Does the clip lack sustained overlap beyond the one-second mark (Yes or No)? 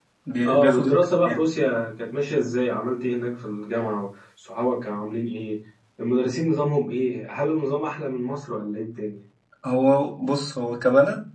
Yes